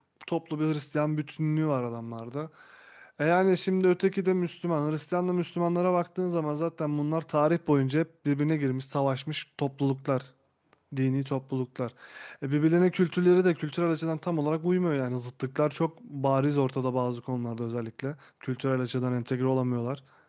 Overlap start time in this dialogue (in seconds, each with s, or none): none